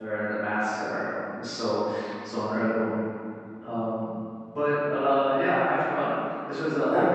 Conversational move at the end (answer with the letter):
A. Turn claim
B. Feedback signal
B